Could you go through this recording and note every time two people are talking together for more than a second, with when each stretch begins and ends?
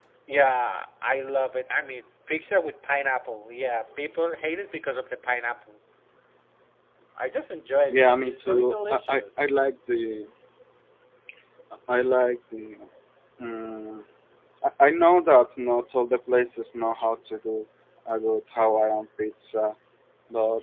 7.9-9.5

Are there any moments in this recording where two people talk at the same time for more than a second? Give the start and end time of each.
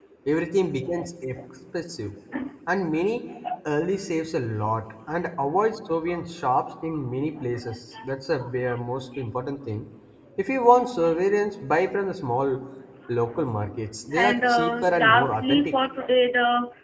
14.1-15.7

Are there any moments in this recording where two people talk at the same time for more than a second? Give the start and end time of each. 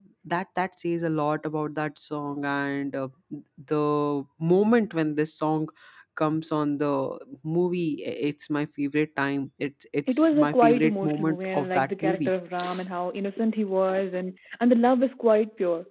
10.1-12.3

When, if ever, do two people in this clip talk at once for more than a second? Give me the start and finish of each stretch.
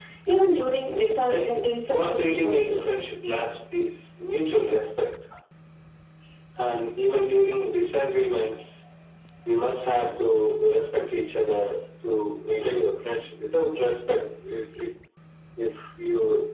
1.6-2.8

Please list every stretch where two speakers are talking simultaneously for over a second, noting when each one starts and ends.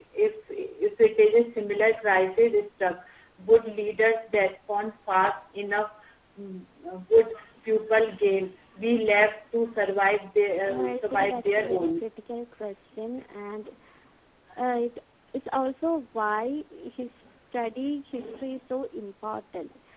10.6-11.9

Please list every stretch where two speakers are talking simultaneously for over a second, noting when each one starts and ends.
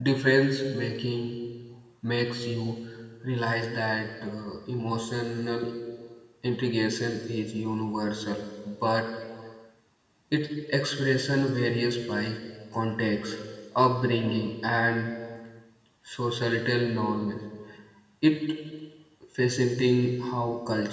none

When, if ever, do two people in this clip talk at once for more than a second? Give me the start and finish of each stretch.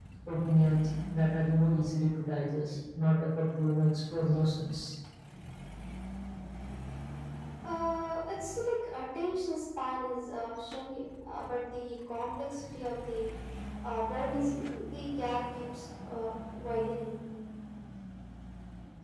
none

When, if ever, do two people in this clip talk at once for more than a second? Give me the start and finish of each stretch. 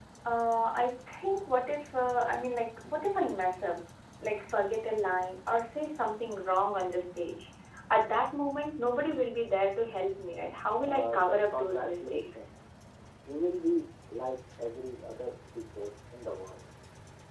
10.8-12.5

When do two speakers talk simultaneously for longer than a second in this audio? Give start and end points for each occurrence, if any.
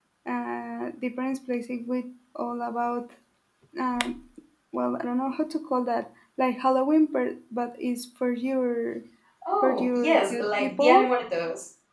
9.6-11.1

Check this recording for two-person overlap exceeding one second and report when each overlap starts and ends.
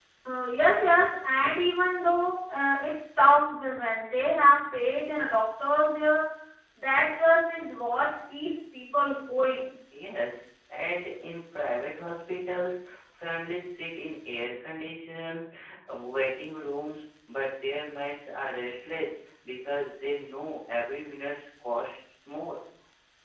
none

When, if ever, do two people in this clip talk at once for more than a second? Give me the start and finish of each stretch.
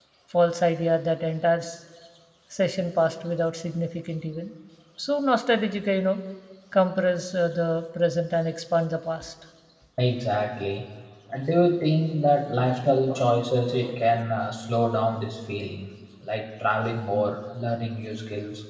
none

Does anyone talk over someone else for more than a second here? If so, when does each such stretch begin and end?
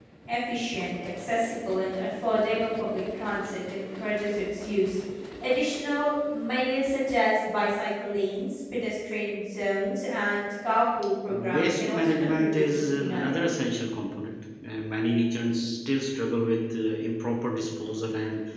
11.3-13.5

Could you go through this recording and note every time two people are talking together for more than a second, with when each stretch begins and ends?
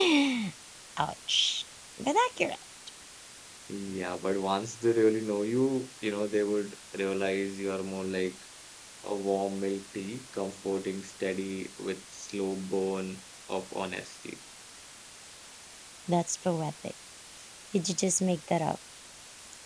none

